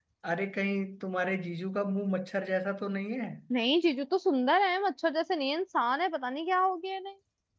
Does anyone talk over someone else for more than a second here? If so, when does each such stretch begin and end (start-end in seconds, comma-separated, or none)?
none